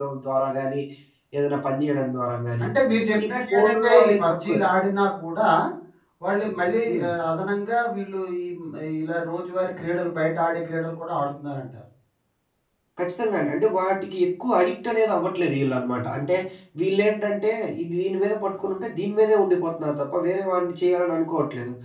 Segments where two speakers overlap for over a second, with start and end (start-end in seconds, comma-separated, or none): 3.3-4.6